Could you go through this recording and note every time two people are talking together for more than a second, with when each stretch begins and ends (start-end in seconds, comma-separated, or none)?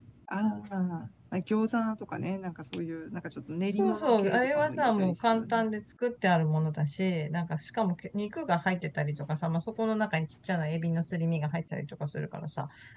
3.6-5.7